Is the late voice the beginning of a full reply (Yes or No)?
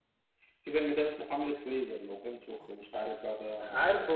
Yes